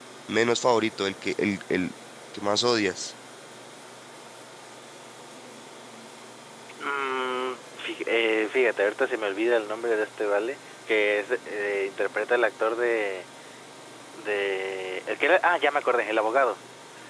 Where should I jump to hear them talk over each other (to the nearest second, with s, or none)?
none